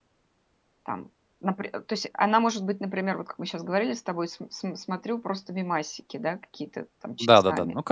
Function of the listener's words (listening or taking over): taking over